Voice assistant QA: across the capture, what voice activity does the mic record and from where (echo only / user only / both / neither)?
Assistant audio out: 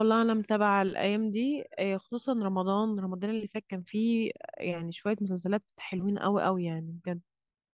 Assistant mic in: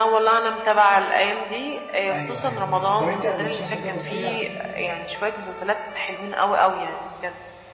both